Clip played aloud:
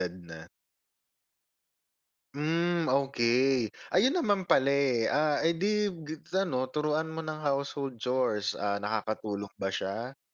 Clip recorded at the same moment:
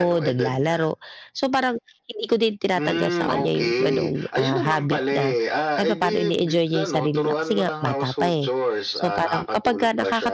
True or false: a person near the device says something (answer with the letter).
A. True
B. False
A